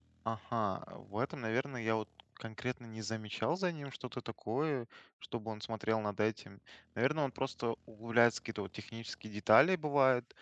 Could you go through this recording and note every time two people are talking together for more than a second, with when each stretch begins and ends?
none

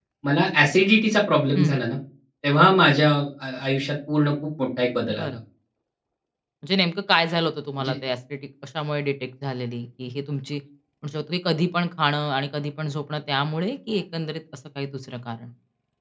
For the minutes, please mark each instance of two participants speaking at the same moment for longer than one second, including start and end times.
none

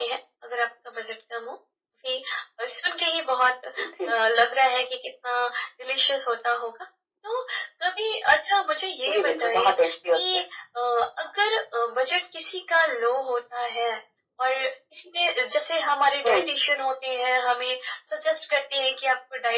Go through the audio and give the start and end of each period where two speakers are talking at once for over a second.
9.1-10.4

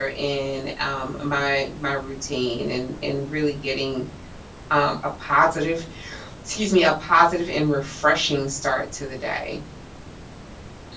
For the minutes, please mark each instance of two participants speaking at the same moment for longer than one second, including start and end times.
none

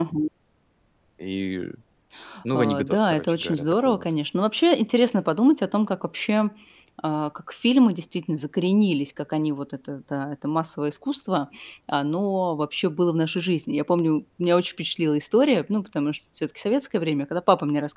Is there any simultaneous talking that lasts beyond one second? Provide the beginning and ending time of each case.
2.5-4.0

